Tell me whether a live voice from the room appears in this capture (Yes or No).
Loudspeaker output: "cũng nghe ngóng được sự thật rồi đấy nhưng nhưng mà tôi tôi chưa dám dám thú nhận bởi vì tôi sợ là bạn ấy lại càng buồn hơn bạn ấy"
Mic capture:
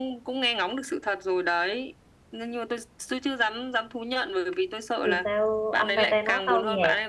Yes